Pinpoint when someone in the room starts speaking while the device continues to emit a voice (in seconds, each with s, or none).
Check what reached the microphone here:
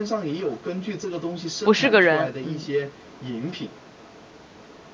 1.6 s